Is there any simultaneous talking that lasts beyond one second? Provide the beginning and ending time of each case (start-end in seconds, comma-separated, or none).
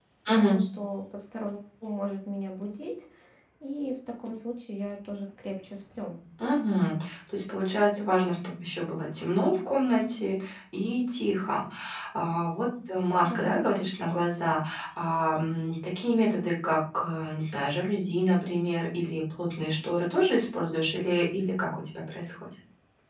none